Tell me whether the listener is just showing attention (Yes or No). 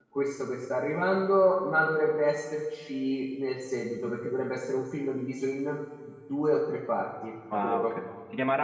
No